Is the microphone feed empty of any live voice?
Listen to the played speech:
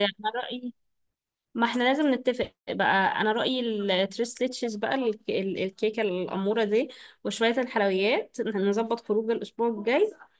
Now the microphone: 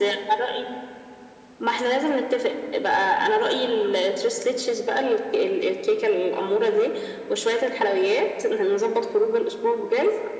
Yes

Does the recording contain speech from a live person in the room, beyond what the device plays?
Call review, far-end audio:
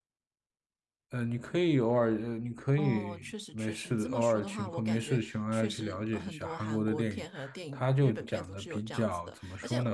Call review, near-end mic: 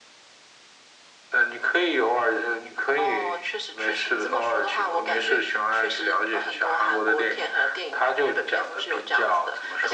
No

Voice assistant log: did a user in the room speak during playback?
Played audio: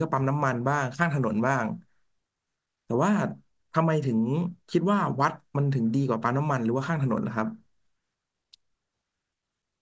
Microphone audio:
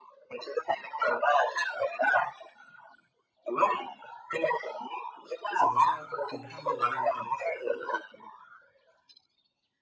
Yes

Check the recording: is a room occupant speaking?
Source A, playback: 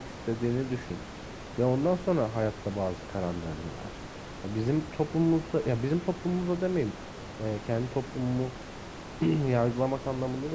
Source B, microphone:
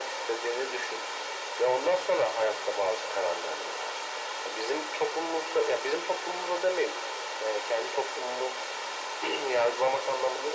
No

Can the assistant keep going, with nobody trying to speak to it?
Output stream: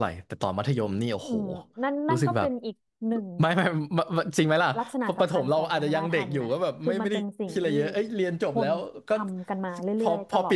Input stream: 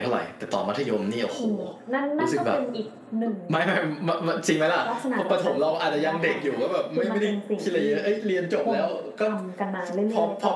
Yes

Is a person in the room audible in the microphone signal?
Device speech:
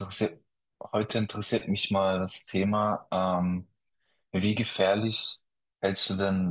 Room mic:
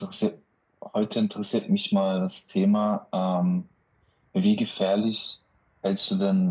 No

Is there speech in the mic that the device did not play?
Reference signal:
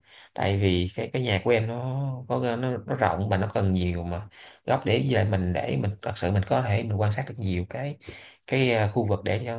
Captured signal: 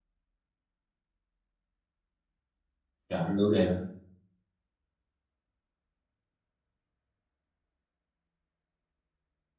Yes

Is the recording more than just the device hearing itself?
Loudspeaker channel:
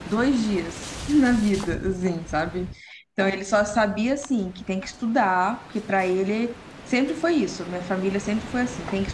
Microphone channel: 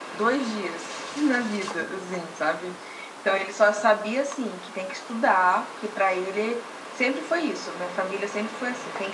No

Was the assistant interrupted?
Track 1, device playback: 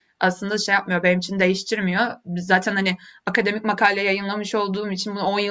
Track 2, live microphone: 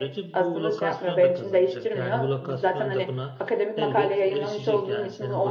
Yes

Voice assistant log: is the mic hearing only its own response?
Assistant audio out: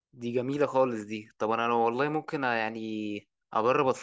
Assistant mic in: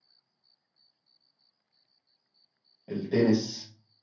No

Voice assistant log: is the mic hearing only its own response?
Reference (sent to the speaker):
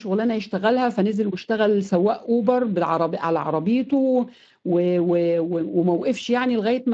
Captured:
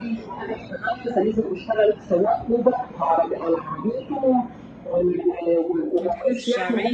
No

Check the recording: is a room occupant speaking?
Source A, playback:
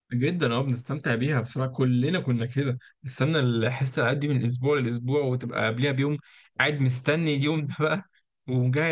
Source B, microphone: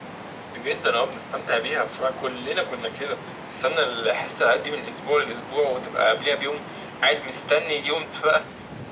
No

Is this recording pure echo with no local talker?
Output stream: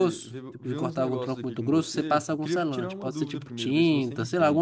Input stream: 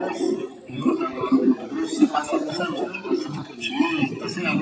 Yes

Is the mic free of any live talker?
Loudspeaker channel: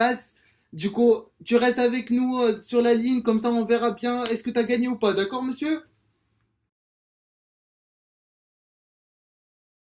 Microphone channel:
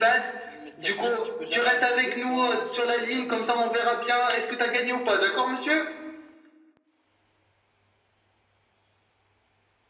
No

